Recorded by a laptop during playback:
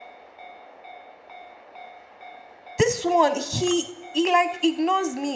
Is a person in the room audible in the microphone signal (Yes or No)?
Yes